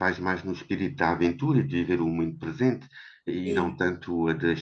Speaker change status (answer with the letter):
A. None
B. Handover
A